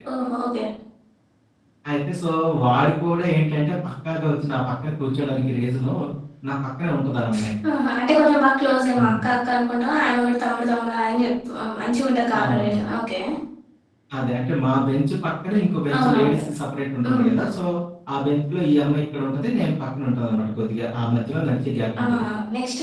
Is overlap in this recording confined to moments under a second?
Yes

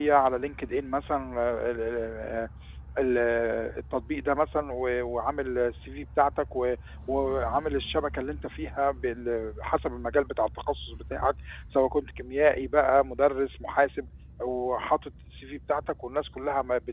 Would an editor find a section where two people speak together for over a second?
No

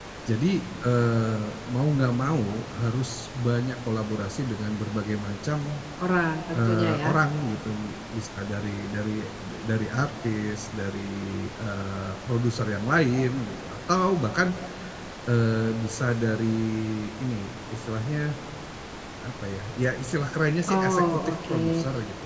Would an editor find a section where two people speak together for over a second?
Yes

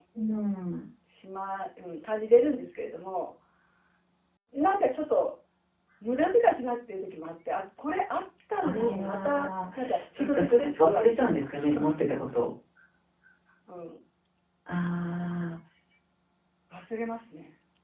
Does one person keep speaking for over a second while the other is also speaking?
Yes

